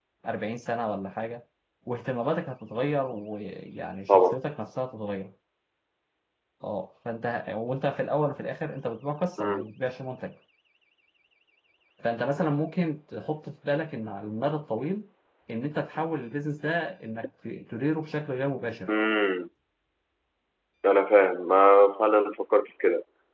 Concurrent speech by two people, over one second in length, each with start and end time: none

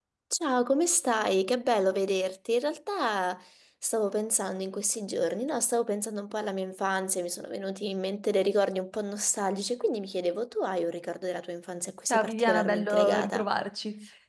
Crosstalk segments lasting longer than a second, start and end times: 12.1-13.4

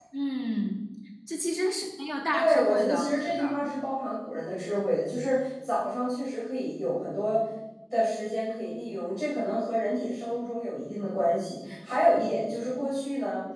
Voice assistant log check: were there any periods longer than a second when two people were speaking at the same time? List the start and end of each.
2.3-3.6

